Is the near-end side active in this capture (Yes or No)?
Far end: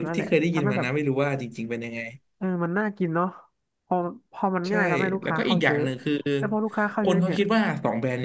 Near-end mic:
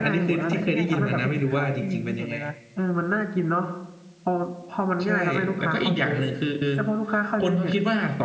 Yes